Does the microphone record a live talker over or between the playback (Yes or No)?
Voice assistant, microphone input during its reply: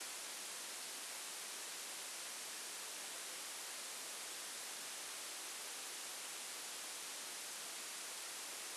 No